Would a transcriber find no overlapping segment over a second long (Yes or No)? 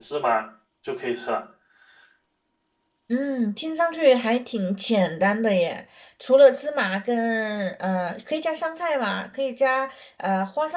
Yes